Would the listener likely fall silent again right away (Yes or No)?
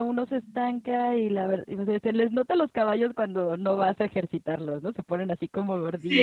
No